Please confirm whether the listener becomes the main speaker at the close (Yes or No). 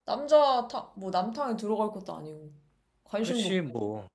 Yes